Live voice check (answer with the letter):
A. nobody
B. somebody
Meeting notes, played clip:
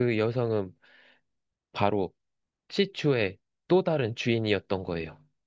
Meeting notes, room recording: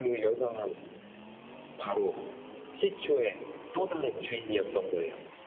A